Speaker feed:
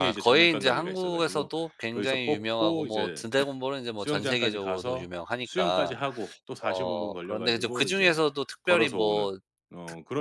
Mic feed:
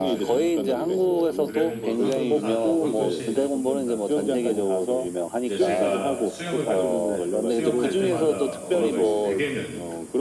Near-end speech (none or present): present